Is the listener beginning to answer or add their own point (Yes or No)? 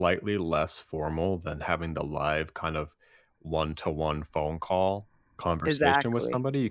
No